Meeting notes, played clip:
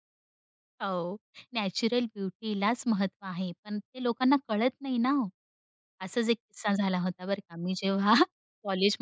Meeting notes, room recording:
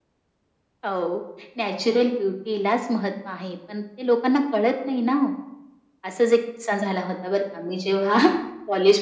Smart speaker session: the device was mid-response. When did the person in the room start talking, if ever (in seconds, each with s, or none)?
none